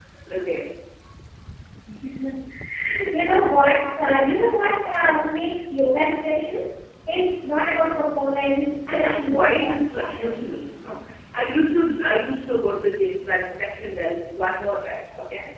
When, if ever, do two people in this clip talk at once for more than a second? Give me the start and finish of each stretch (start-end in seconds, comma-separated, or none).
8.9-10.4